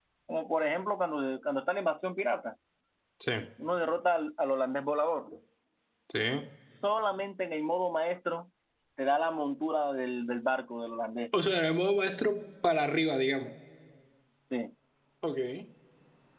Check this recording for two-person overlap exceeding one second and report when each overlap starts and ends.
none

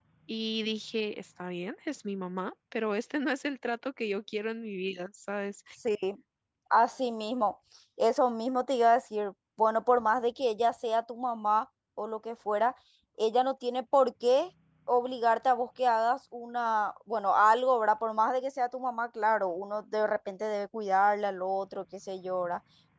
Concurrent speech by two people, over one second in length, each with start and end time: none

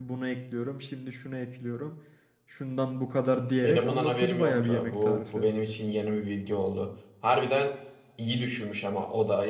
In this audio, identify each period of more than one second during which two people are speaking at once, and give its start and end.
3.6-5.5

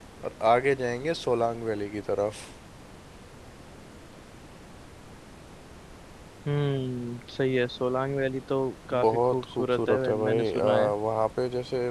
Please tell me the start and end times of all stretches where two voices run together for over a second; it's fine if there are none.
9.0-10.9

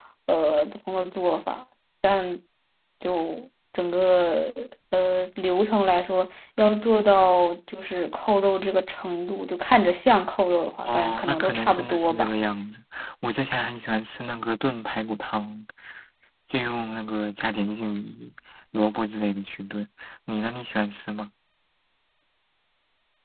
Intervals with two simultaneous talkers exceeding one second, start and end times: 10.8-12.3

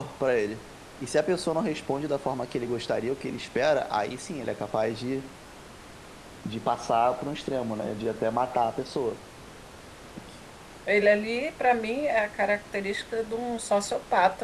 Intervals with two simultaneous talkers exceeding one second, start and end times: none

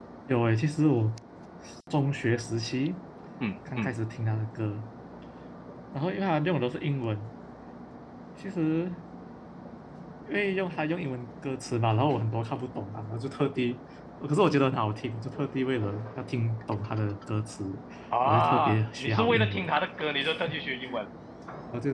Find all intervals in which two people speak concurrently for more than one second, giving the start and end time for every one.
18.2-19.6

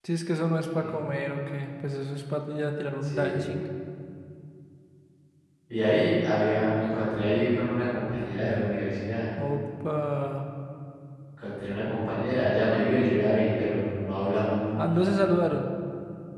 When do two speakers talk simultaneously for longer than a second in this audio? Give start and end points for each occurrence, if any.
none

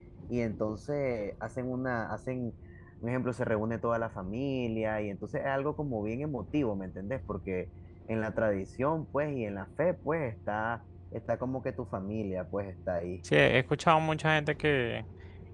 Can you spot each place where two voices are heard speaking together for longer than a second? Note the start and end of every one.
none

